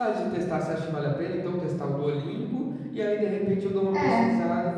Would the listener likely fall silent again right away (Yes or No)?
Yes